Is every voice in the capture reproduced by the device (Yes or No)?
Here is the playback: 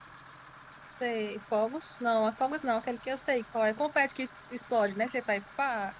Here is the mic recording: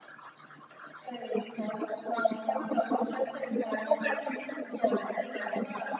Yes